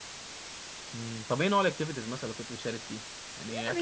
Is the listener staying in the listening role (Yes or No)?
No